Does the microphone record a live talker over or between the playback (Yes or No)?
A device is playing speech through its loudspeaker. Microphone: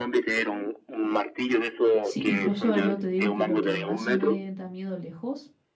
Yes